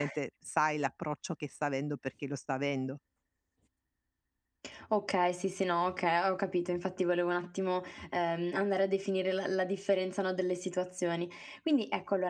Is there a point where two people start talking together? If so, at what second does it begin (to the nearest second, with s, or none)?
none